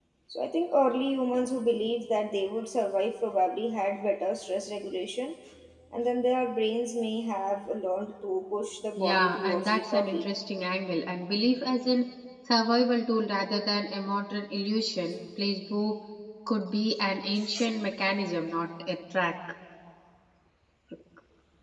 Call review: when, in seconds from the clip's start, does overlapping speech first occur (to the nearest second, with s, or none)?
9 s